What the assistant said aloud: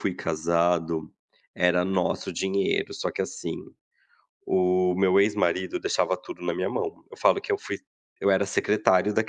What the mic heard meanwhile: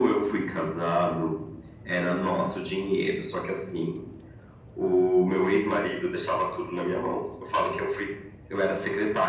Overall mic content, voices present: echo only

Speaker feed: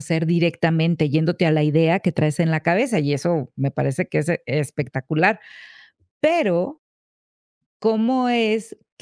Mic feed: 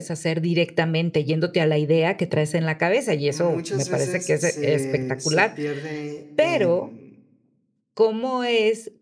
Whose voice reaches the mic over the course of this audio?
both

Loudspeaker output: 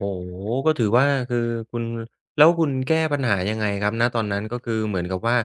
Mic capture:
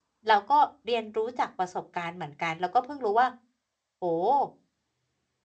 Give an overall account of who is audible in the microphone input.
user only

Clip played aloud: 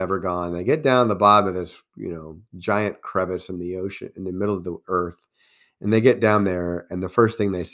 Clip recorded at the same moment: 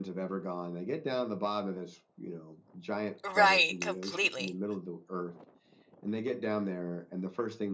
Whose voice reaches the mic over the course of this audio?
both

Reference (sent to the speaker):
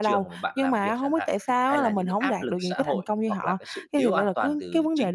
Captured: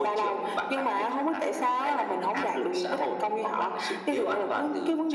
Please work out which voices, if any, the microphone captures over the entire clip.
echo only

